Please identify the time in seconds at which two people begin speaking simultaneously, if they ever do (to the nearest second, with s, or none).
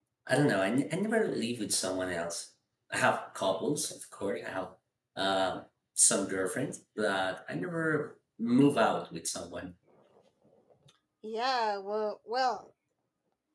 none